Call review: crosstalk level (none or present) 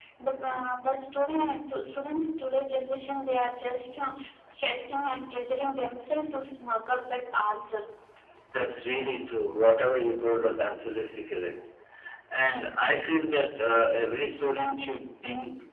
none